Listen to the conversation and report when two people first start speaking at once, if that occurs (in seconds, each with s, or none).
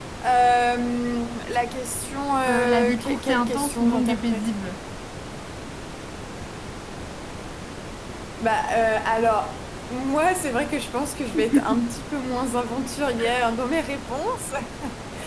2.5 s